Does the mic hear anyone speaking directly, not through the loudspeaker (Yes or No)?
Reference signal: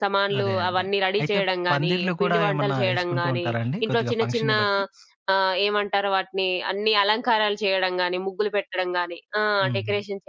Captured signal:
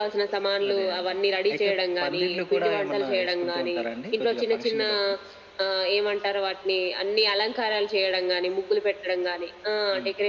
No